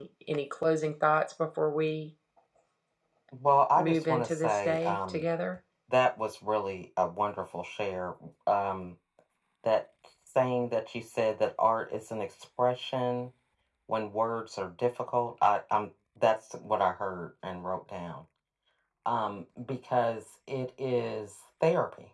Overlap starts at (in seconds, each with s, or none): 3.8 s